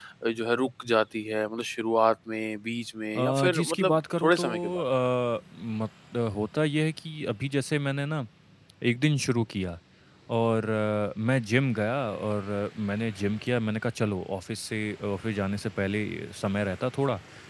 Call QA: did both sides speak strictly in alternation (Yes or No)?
No